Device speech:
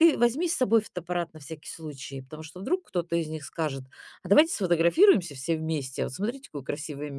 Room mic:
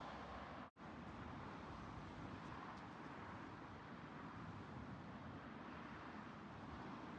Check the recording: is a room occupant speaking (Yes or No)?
No